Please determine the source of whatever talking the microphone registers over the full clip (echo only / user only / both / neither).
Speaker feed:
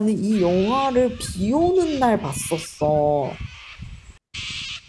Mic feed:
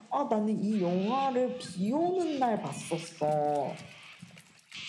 echo only